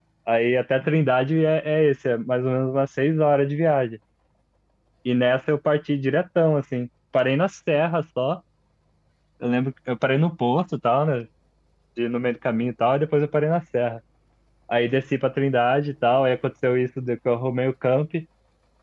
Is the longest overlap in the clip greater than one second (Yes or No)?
No